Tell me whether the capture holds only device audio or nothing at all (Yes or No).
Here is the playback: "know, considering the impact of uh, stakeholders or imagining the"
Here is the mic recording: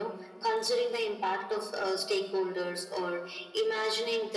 Yes